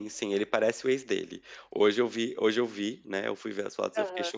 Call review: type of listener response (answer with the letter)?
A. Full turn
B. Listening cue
B